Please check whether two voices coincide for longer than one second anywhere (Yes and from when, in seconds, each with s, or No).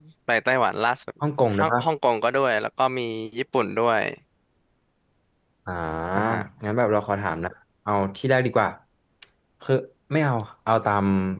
No